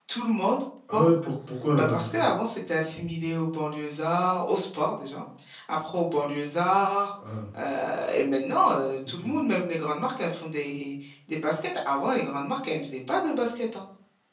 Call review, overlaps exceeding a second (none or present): none